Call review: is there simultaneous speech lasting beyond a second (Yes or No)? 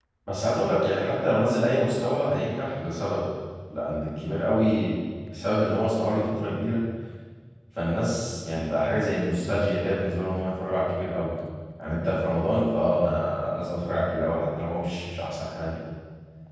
No